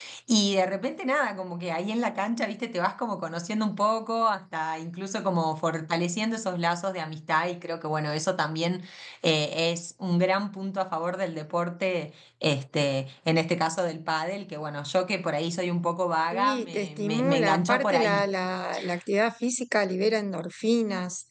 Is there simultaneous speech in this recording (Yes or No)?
Yes